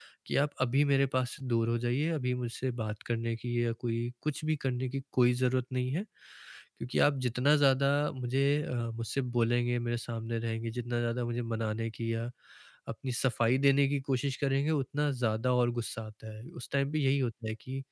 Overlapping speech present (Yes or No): No